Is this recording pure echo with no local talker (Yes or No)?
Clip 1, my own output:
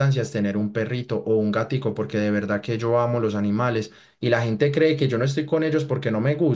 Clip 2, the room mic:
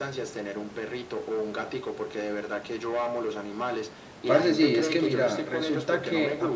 No